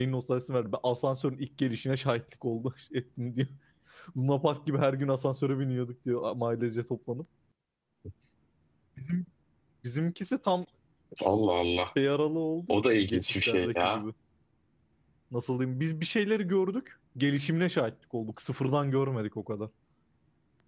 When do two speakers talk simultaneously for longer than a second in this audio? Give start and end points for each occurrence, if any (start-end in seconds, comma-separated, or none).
12.7-14.0